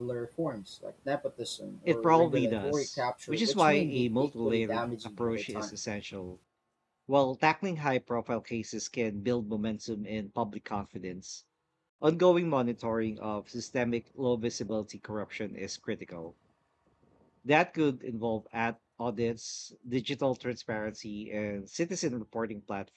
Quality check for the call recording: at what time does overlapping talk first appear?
1.9 s

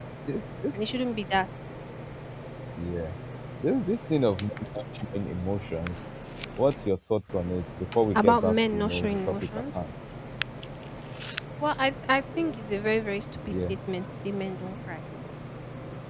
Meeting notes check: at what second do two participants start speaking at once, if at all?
8.1 s

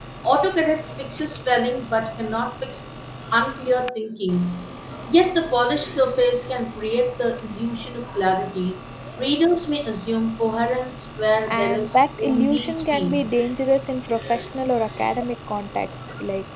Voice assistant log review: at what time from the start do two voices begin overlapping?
11.5 s

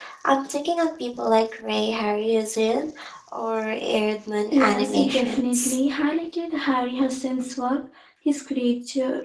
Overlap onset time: 4.5 s

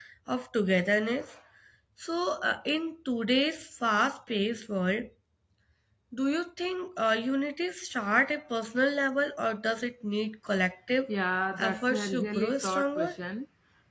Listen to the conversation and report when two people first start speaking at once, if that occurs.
11.6 s

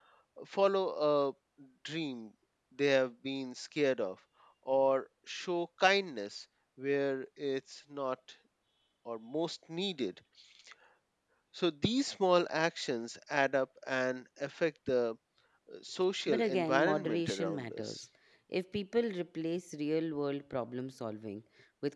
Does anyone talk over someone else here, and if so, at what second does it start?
16.3 s

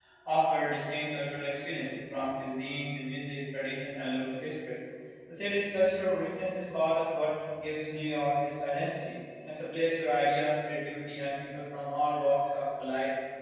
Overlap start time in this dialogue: none

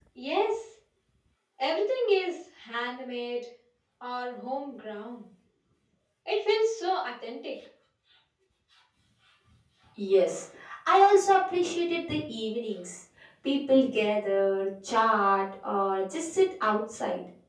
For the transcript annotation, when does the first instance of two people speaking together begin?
none

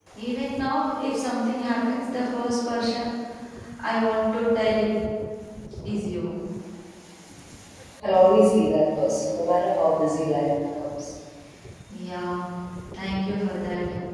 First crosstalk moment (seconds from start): none

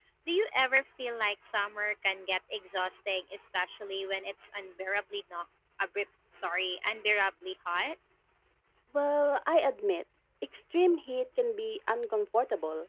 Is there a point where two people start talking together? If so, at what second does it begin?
none

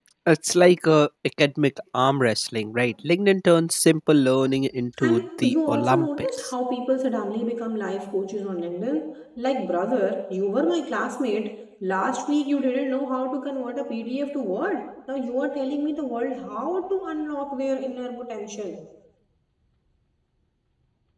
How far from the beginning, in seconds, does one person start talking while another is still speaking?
5.0 s

